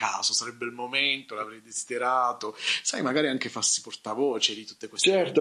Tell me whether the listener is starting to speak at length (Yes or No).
Yes